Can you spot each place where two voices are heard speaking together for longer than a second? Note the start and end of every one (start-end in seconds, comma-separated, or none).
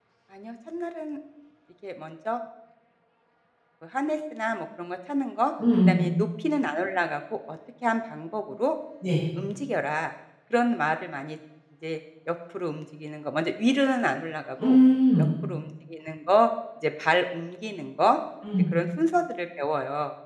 none